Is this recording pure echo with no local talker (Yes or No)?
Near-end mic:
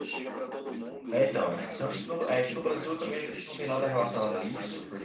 No